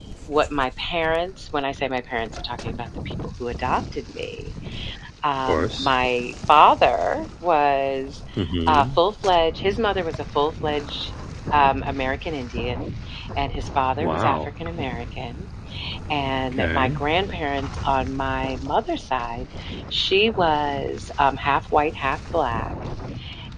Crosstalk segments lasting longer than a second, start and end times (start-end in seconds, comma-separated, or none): none